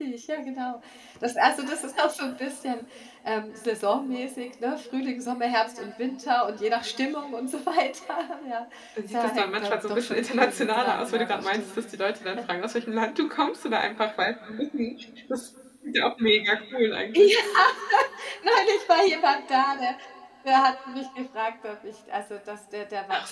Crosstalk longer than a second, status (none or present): present